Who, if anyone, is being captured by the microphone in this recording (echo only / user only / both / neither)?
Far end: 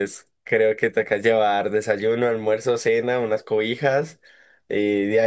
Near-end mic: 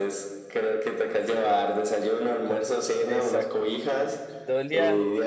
both